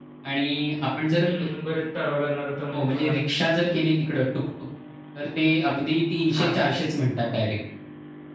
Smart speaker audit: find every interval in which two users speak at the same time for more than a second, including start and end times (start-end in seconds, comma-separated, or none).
none